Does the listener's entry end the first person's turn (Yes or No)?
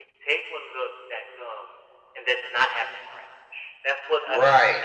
Yes